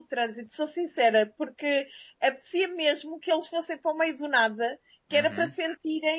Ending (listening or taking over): listening